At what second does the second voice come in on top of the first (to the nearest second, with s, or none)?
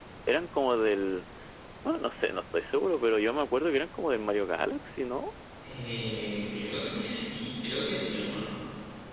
none